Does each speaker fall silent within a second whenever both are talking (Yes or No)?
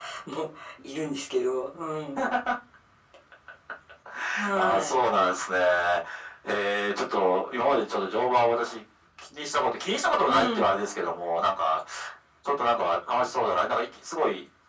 Yes